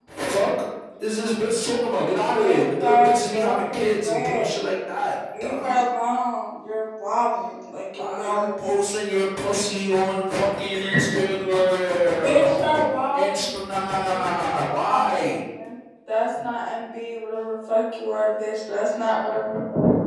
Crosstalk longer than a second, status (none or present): present